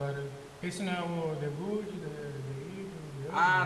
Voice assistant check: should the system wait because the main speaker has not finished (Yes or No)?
No